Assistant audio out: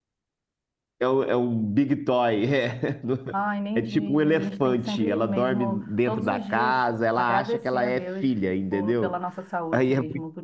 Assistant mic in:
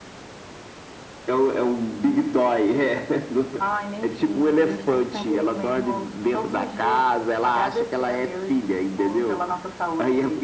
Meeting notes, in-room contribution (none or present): none